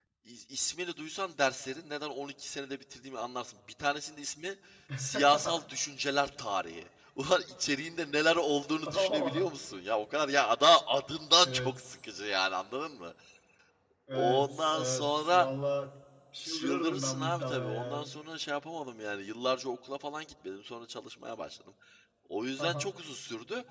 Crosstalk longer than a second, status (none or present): present